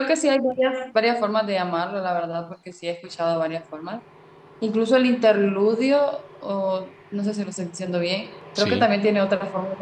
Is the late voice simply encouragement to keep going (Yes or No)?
Yes